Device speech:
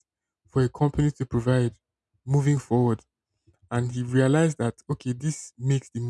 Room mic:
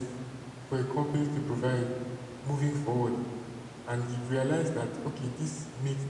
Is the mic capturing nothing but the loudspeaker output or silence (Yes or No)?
Yes